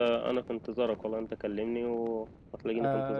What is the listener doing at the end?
taking over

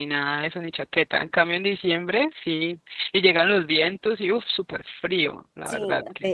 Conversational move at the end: taking over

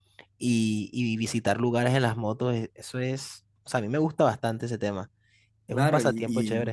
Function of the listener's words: taking over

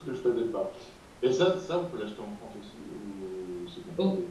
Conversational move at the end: taking over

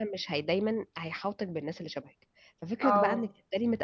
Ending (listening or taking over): listening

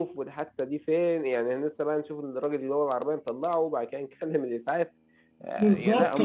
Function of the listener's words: taking over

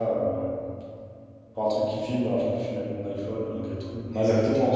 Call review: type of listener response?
taking over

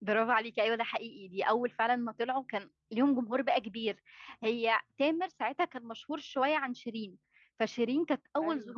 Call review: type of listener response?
listening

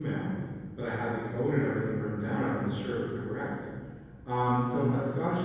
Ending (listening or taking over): listening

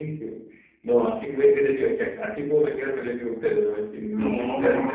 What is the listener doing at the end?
listening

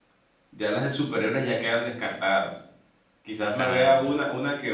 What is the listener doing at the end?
listening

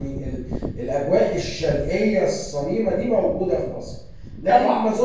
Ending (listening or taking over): listening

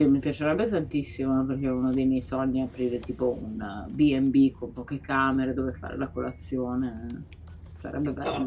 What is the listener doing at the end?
taking over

